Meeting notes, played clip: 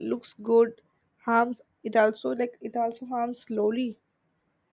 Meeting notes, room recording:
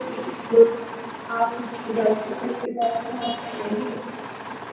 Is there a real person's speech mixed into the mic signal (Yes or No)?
No